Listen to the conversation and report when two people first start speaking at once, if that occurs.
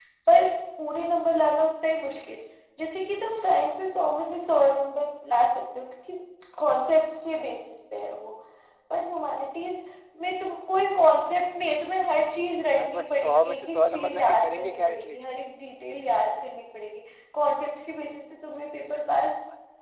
12.6 s

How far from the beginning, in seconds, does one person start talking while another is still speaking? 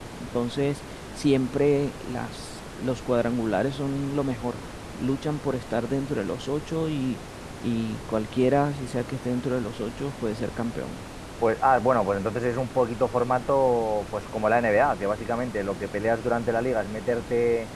none

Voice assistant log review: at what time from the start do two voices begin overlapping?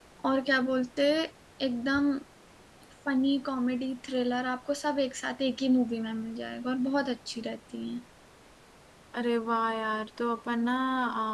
none

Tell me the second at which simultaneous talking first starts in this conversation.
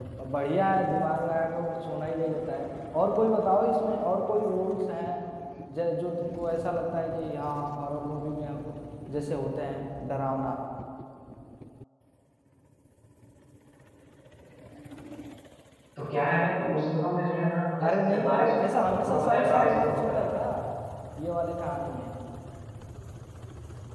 17.8 s

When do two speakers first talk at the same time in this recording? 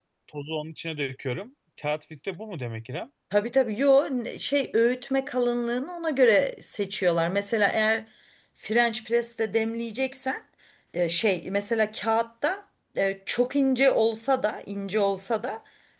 none

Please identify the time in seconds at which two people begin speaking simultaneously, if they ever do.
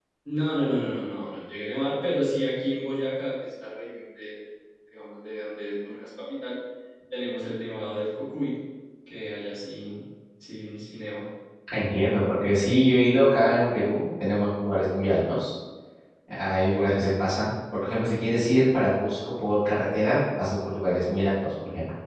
none

